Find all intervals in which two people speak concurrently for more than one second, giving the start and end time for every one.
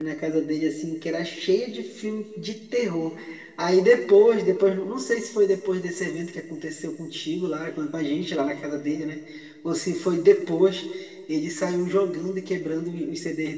none

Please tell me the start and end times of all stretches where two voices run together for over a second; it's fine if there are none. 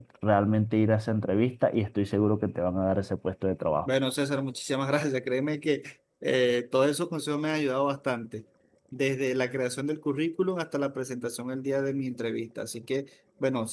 none

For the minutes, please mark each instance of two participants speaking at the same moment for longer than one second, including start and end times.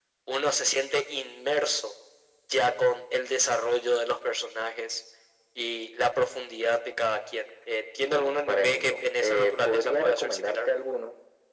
8.1-10.7

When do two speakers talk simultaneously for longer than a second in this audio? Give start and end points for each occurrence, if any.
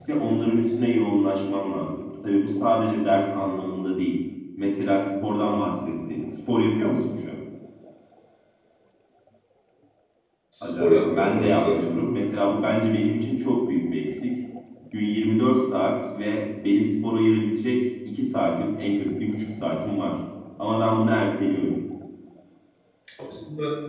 10.6-11.8

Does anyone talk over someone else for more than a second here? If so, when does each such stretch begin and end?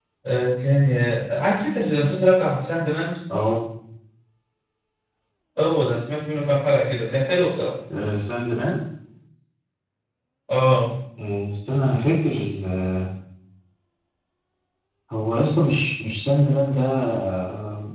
none

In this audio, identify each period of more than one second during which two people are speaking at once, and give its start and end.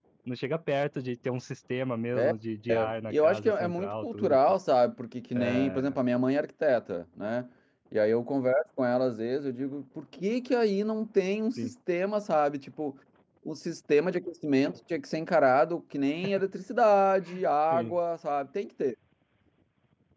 2.7-4.4

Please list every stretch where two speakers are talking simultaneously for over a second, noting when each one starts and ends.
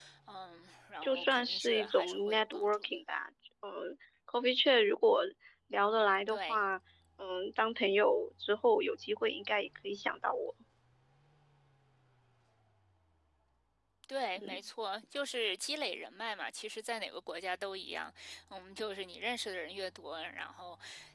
1.0-2.9

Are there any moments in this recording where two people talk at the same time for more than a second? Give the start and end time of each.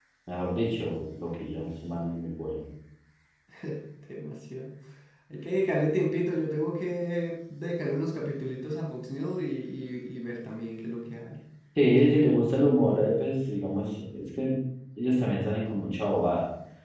none

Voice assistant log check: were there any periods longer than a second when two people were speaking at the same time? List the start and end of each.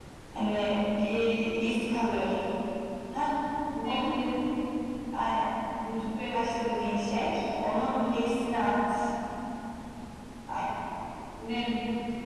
none

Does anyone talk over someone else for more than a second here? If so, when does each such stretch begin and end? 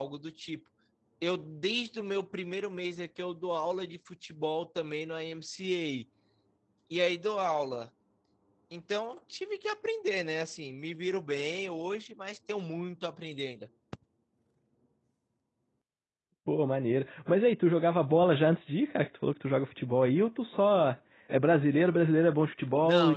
none

